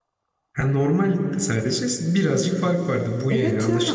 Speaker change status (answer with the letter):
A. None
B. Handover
B